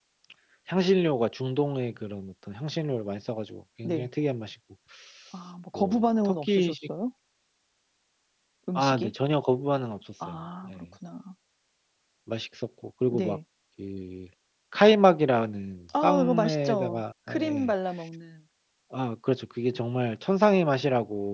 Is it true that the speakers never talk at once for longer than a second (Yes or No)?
No